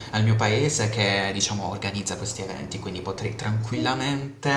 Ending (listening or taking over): listening